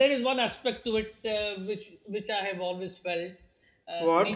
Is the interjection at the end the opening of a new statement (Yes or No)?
No